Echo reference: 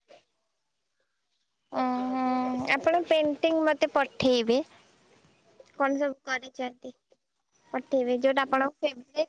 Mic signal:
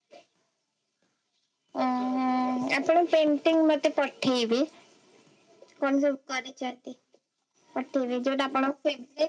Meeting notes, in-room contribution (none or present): none